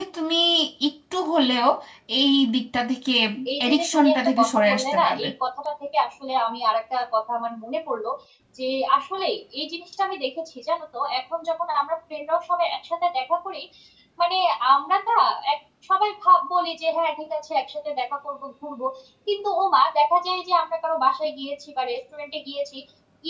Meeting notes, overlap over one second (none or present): present